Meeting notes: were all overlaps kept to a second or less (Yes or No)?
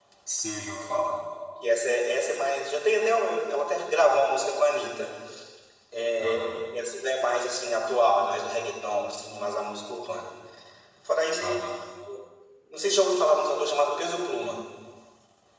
Yes